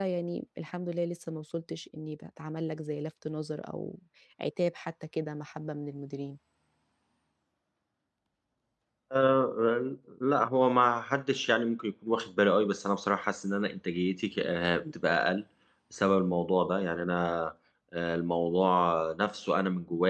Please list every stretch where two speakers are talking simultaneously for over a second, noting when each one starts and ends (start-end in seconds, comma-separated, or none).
none